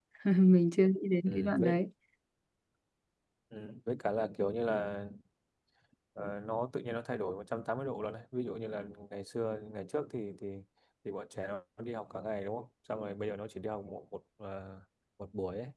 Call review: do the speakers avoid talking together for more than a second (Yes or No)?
Yes